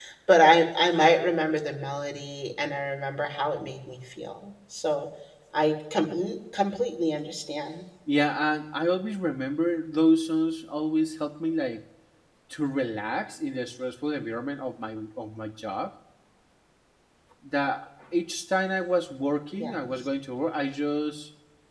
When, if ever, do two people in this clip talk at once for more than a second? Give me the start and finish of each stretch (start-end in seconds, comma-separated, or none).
none